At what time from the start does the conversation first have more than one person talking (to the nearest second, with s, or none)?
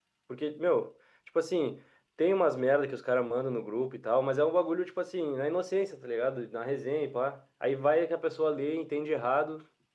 none